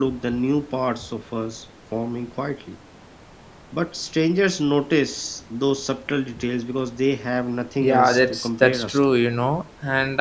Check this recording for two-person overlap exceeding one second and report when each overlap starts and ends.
7.8-9.1

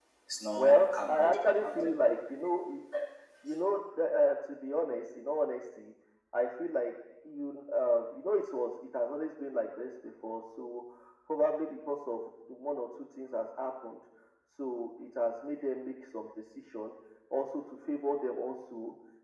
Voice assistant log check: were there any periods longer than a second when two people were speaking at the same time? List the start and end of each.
0.5-1.9

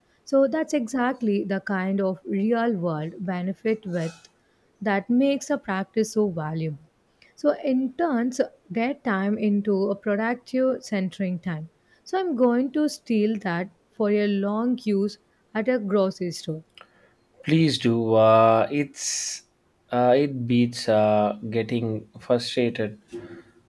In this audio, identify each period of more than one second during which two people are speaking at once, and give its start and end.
none

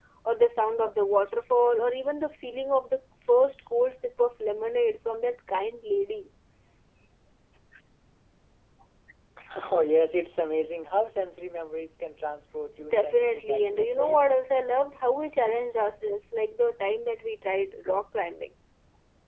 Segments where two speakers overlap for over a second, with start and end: 12.9-14.3

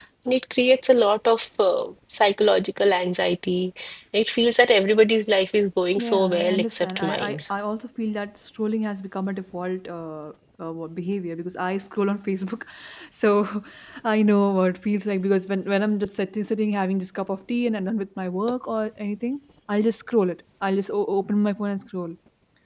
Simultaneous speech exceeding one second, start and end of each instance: 6.0-7.4

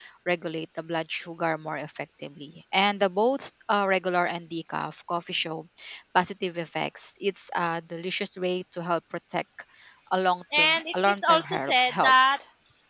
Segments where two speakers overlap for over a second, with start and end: 10.6-12.1

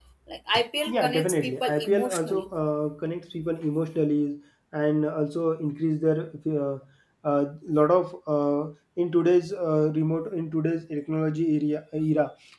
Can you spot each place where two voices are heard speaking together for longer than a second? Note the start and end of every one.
0.9-2.4

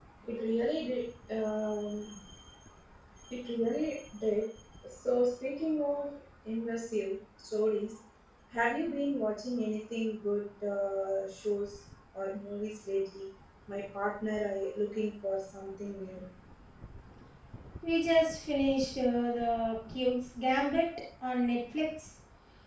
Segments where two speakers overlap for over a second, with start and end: none

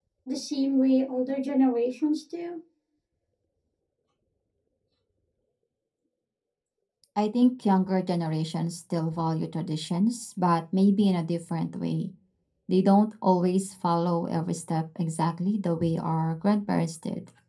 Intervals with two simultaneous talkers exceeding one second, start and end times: none

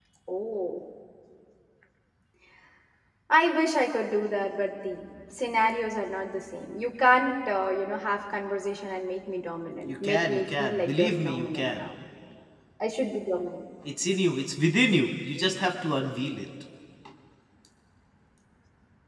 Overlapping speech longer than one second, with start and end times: 9.9-11.8

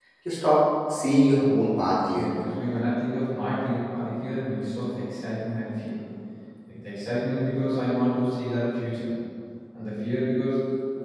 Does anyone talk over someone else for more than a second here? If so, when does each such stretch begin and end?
none

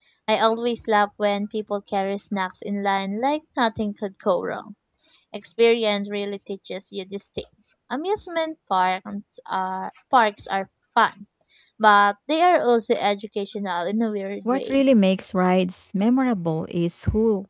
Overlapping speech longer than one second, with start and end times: none

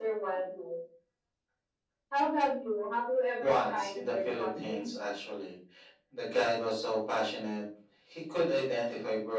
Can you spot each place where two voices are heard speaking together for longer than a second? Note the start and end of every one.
3.4-4.9

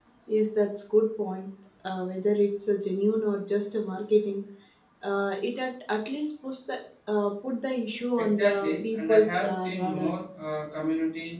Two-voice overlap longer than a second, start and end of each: 8.2-10.1

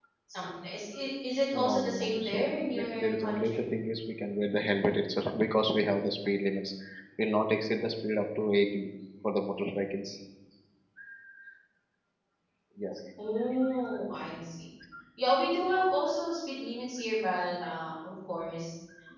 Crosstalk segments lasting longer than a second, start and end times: 1.6-3.6

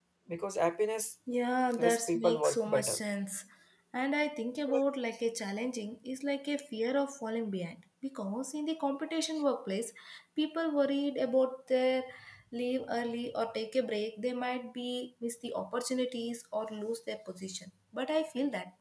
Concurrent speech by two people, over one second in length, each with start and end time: 1.8-3.0

